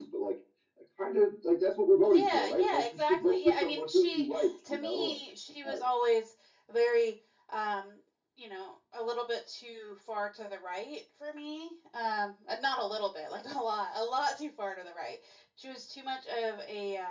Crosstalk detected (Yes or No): Yes